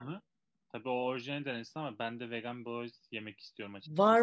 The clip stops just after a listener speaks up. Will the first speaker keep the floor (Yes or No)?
No